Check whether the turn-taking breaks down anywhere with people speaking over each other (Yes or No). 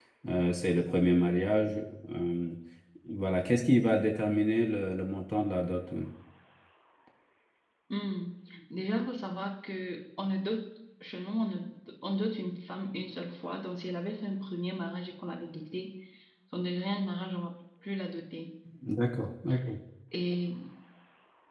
No